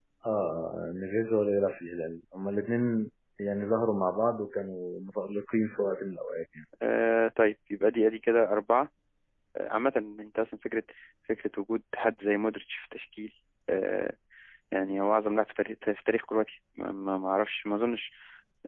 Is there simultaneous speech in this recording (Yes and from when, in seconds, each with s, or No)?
No